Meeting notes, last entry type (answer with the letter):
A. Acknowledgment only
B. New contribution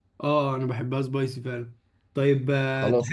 B